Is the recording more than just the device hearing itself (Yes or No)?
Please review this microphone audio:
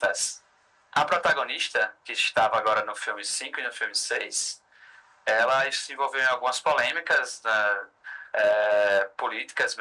No